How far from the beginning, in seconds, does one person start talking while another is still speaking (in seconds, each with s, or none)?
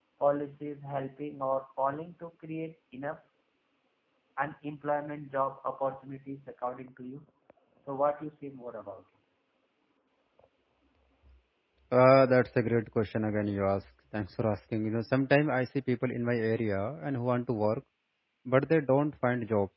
none